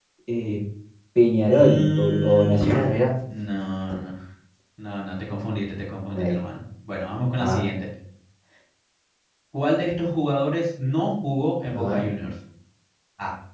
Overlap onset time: 1.5 s

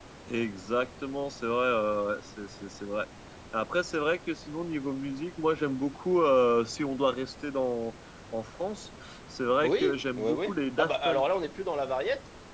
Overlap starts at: 9.6 s

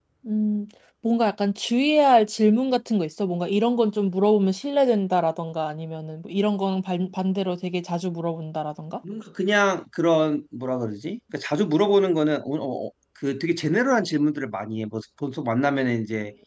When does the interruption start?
none

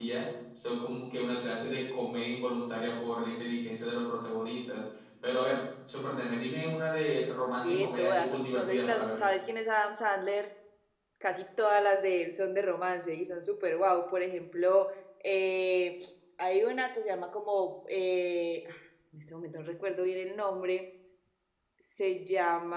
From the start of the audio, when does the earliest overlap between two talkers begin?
7.6 s

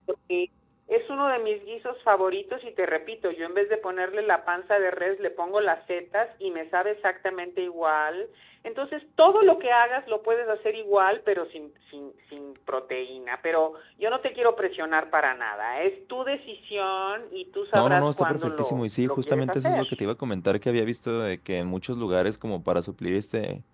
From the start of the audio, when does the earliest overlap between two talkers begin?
17.7 s

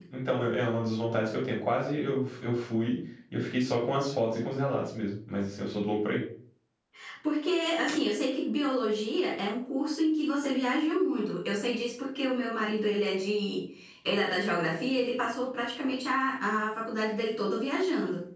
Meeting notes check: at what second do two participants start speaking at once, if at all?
none

